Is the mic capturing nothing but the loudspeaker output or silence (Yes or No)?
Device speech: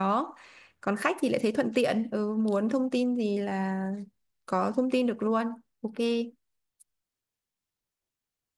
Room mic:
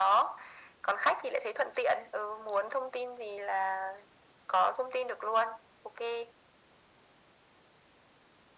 Yes